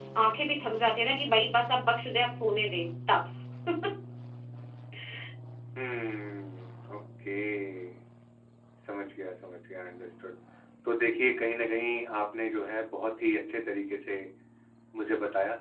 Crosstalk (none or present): none